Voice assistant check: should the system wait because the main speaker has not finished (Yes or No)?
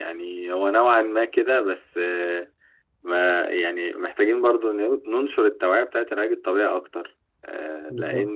No